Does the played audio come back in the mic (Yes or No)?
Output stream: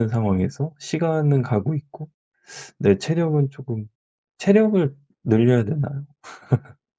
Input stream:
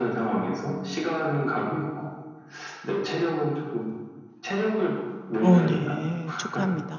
Yes